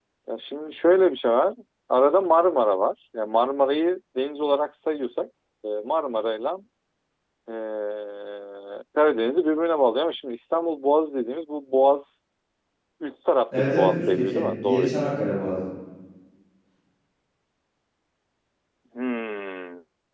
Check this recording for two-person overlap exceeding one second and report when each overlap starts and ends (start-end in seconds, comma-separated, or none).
13.6-14.9